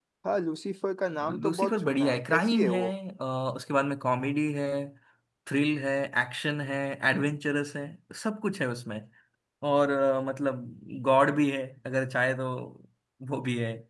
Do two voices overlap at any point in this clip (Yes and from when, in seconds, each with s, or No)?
Yes, from 1.2 s